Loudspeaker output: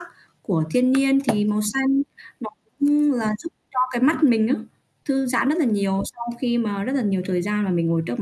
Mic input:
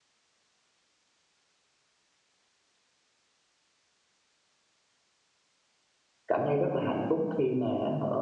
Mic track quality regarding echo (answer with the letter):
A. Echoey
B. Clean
B